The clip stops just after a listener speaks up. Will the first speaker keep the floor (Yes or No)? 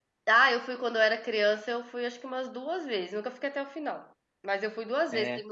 Yes